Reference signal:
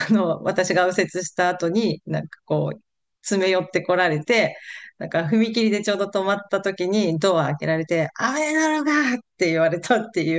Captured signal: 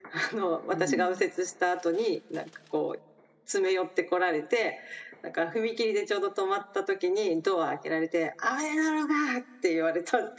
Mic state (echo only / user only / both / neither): both